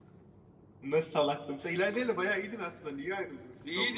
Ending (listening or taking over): taking over